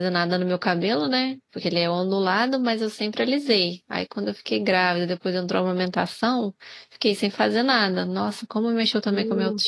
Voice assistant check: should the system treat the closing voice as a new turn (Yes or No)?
Yes